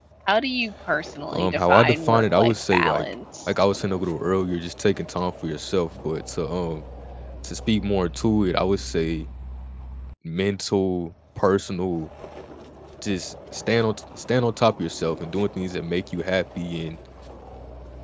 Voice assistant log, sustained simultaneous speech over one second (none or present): present